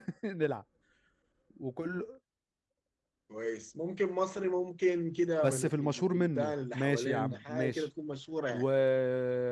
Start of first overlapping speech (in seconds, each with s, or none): 5.4 s